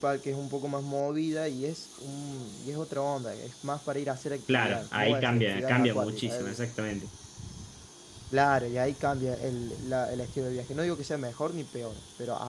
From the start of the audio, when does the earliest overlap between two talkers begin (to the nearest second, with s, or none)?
4 s